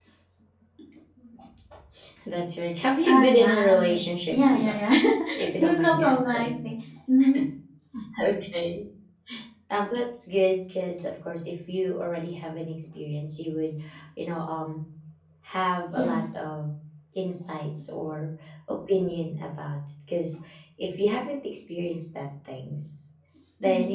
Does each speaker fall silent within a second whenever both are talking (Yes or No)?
No